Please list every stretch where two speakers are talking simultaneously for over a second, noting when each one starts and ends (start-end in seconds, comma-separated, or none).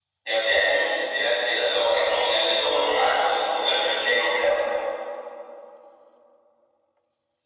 2.6-4.5